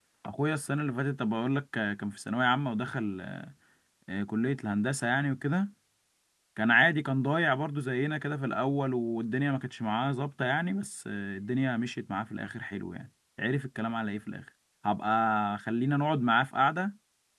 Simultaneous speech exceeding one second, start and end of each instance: none

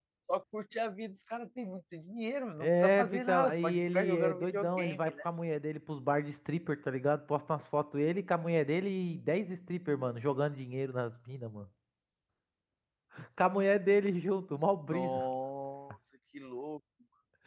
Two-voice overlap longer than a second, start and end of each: 2.6-5.1

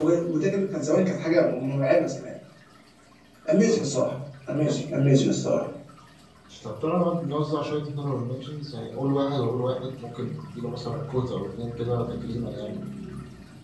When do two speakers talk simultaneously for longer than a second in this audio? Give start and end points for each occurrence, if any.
none

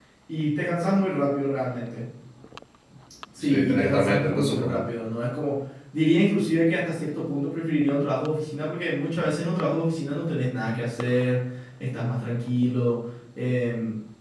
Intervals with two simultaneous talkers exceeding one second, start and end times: 3.4-4.8

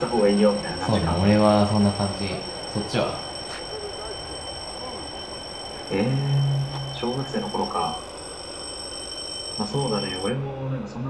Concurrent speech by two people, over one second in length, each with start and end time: none

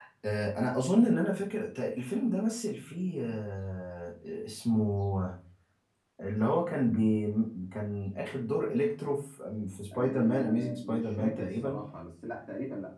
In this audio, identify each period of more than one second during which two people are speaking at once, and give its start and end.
9.9-11.8

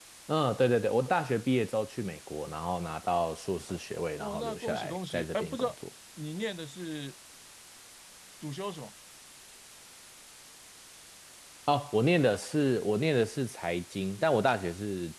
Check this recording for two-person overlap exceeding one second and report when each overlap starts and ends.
4.2-5.7

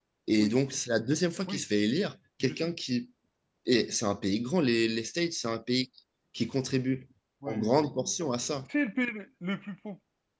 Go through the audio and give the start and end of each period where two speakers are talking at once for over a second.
none

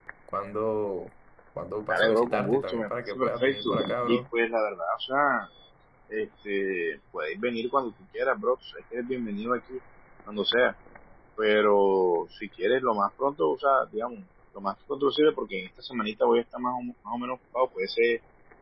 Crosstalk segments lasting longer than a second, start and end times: 1.9-4.2

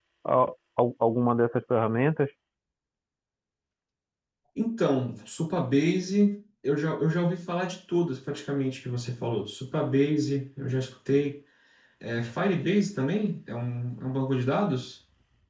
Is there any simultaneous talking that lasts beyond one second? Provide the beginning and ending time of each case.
none

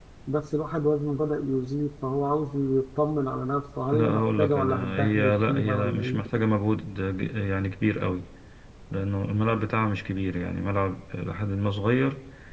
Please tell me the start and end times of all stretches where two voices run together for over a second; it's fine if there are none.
3.9-6.3

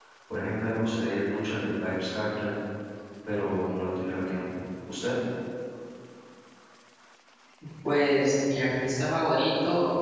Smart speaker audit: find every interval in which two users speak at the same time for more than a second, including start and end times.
none

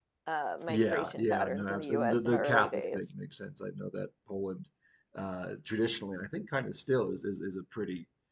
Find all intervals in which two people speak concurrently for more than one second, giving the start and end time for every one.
0.7-3.0

